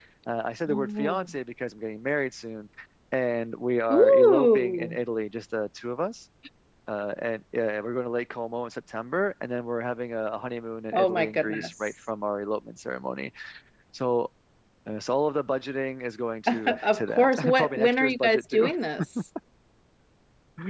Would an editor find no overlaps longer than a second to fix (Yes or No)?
No